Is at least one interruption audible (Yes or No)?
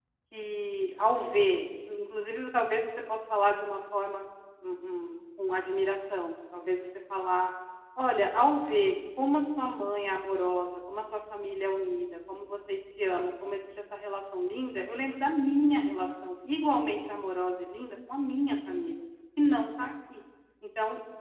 No